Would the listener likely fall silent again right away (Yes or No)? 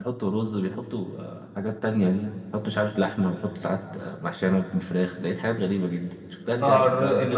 No